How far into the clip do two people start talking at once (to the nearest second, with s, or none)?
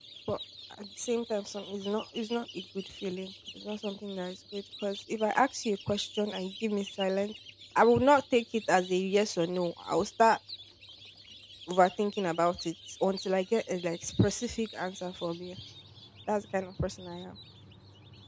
none